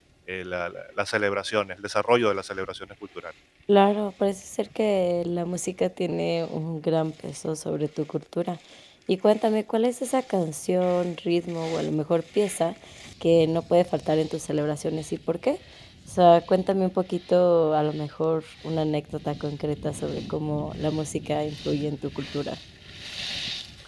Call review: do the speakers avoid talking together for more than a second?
Yes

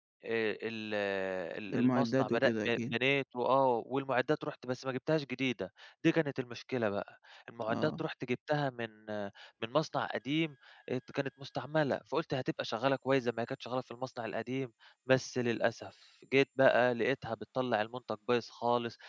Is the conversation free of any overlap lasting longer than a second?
No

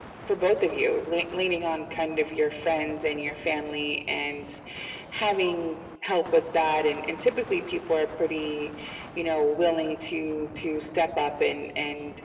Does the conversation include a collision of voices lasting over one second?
No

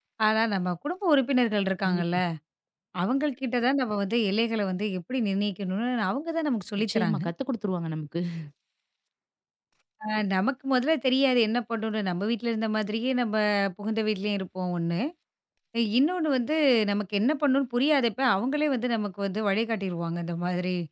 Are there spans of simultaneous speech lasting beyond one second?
No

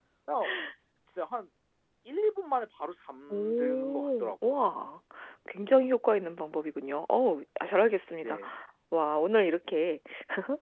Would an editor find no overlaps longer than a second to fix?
No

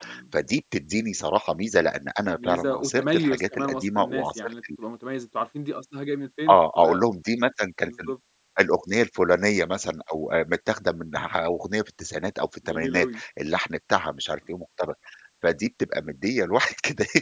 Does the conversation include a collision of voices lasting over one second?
Yes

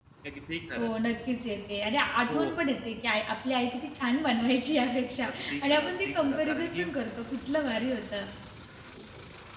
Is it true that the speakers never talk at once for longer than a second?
No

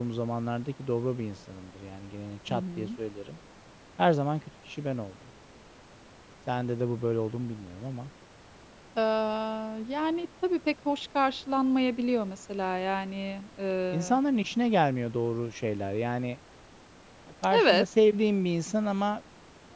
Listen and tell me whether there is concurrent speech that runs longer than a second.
No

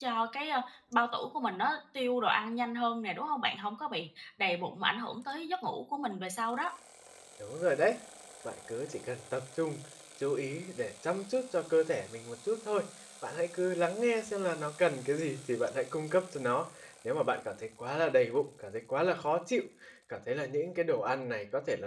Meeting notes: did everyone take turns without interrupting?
Yes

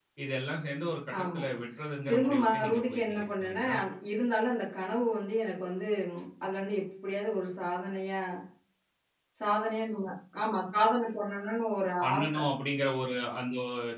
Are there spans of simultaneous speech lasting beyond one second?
Yes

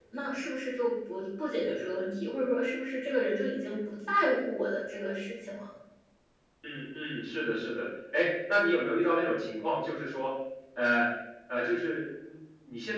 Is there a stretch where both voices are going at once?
No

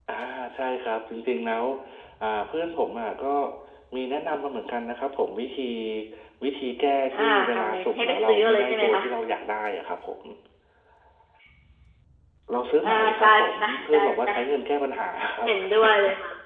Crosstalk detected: Yes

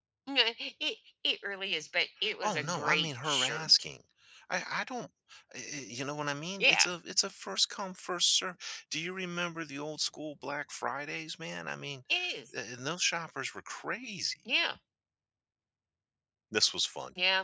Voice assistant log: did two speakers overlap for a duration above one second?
Yes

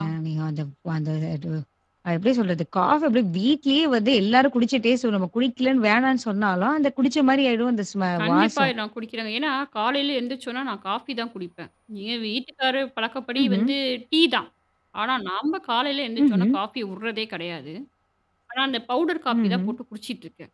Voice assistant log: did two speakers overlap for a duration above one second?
No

